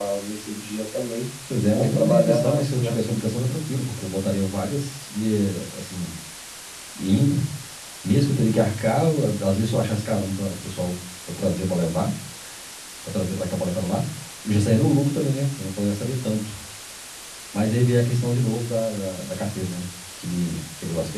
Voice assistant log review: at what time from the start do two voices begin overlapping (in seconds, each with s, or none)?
1.8 s